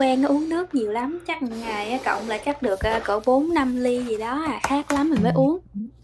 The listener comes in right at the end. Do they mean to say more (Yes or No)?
Yes